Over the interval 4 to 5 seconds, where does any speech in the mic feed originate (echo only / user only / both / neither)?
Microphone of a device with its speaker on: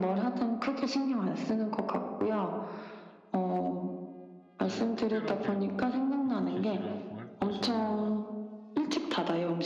both